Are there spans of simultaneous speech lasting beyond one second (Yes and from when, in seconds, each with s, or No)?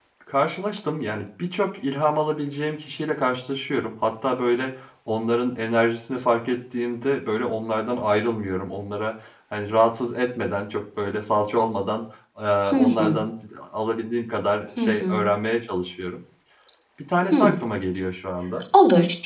No